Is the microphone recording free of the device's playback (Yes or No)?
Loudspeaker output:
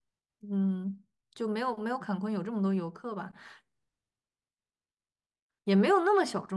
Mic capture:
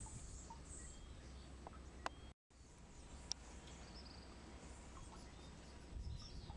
Yes